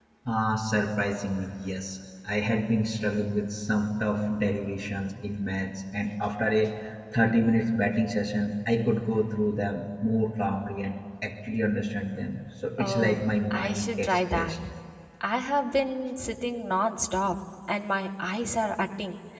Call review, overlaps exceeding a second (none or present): present